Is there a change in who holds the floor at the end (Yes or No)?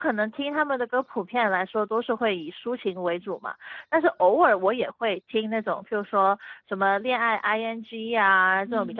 No